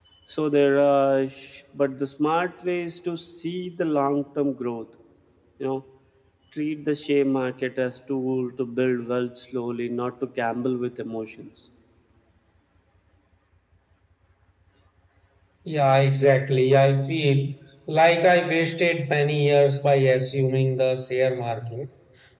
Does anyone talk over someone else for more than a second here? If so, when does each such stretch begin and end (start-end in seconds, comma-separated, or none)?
none